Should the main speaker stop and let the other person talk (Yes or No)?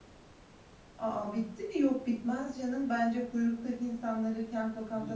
No